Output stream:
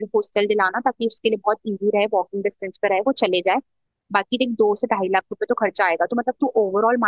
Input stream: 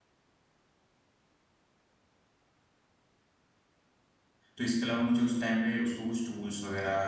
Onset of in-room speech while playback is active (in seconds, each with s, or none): 4.5 s